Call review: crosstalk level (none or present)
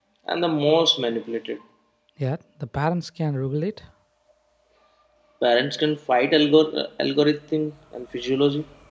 none